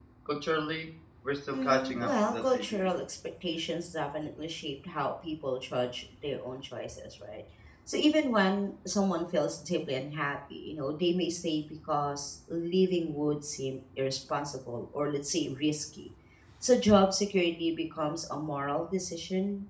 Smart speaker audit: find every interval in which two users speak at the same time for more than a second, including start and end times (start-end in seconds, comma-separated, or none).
1.5-2.9